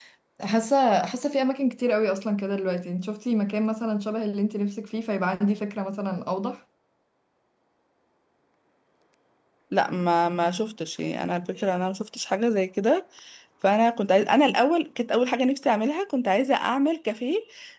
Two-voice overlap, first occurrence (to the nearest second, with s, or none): none